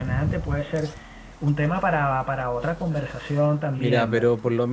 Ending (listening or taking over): taking over